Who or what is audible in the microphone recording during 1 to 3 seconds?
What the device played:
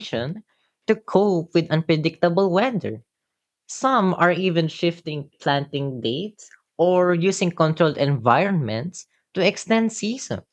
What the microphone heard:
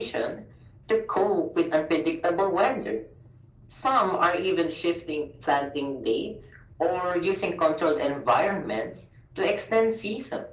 echo only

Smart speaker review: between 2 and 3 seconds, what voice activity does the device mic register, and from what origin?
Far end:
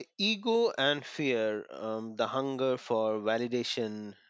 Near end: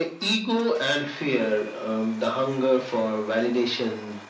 echo only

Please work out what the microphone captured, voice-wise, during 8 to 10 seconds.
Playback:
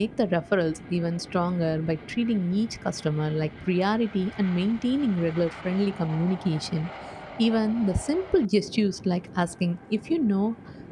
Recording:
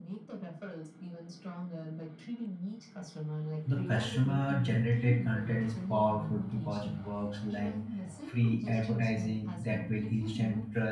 both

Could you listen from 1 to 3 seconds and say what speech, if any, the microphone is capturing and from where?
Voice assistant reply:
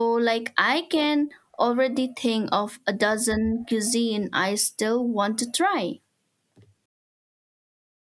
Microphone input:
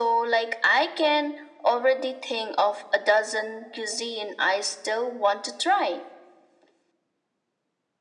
echo only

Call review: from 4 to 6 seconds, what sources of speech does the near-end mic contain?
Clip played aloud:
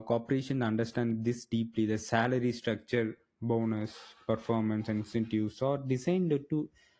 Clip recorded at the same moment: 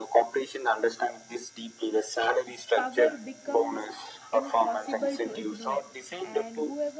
both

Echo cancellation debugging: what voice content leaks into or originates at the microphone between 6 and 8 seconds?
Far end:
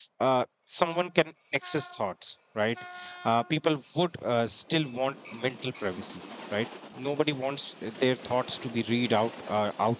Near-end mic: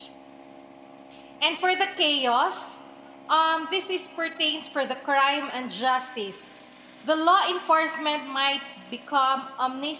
user only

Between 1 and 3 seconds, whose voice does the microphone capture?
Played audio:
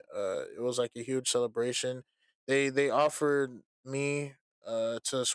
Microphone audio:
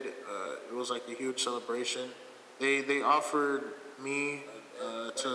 echo only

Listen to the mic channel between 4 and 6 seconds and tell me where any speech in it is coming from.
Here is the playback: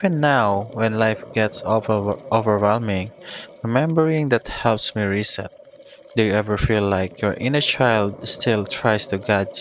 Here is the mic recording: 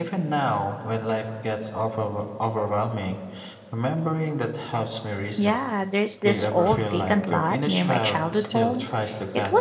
both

